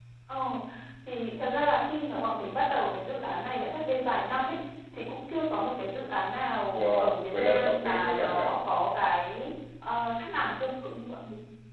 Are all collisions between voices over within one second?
No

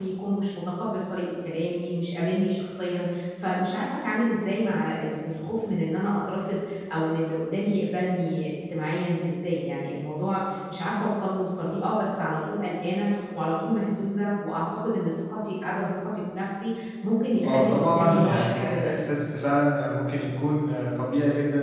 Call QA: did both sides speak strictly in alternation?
No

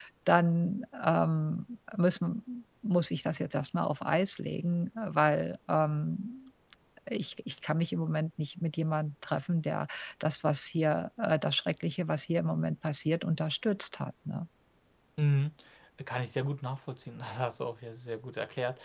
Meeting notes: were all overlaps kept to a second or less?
Yes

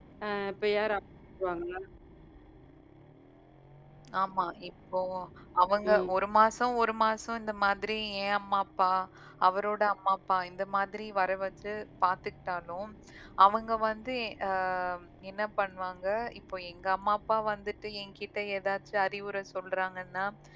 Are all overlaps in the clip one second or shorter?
Yes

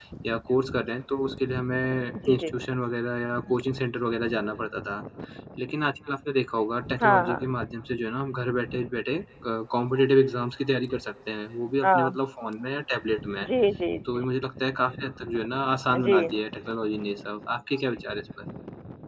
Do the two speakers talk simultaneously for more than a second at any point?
No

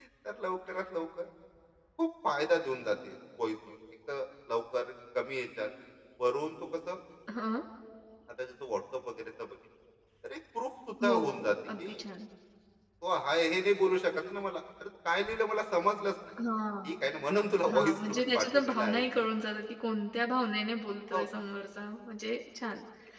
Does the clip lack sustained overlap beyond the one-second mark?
No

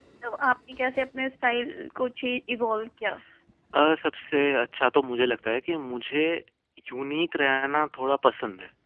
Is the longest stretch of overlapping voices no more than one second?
Yes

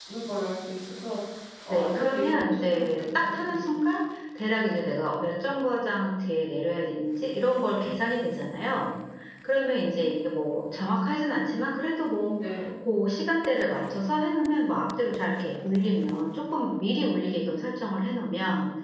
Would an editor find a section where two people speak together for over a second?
Yes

